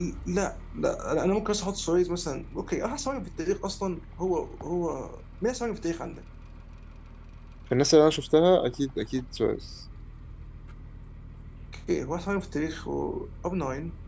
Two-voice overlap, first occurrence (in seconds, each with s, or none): none